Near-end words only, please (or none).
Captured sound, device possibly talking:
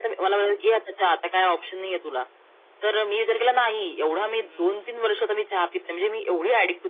हं.